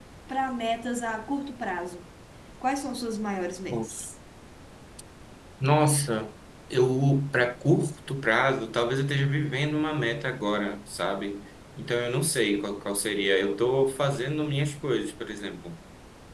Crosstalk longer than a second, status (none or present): none